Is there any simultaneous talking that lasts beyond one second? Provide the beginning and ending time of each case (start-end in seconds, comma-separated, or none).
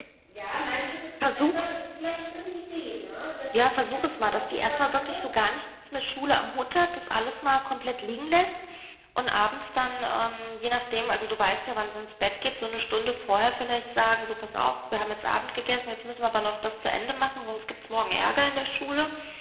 3.5-5.2